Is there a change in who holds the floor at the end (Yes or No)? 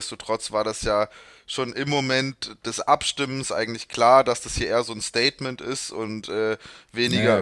No